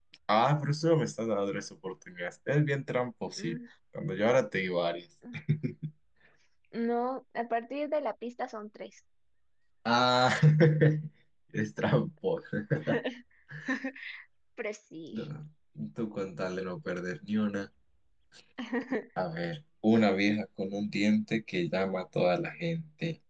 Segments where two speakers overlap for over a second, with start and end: none

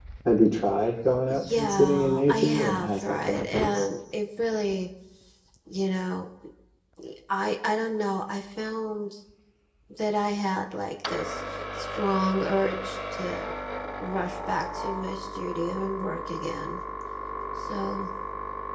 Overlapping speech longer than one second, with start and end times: 1.6-3.9

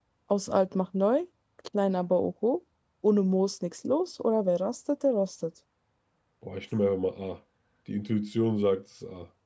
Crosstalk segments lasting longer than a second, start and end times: none

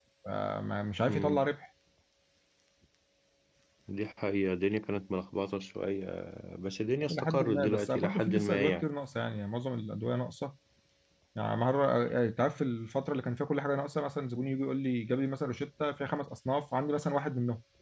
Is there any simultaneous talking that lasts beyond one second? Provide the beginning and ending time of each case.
7.1-8.8

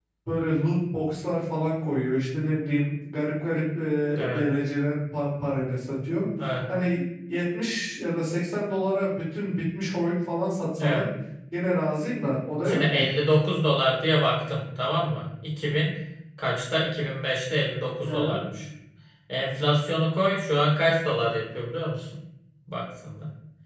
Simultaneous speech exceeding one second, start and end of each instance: none

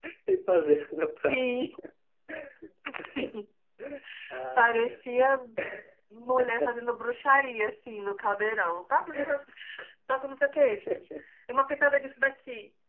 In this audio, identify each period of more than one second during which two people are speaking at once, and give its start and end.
none

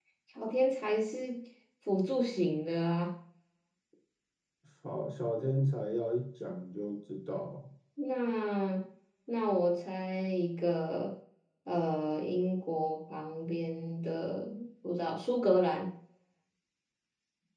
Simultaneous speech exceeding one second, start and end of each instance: none

